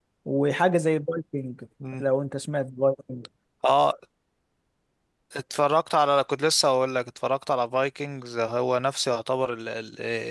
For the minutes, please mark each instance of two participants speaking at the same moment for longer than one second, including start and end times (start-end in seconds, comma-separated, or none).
none